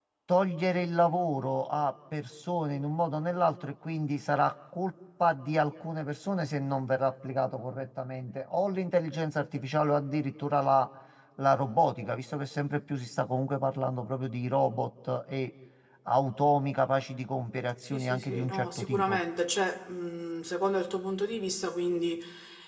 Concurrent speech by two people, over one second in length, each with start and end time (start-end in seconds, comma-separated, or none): 17.9-19.2